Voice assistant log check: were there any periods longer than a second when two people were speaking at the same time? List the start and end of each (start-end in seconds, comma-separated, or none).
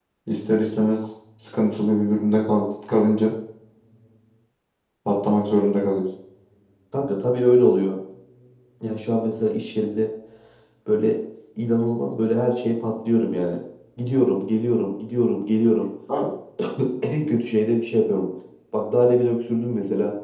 none